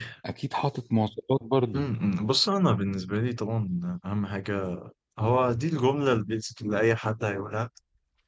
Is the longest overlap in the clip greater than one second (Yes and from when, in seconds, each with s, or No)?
No